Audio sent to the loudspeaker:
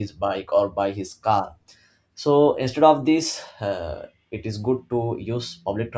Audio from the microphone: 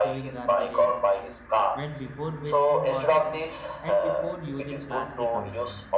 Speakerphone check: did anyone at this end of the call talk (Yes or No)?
Yes